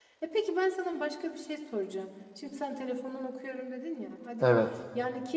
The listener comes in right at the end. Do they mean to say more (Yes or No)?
No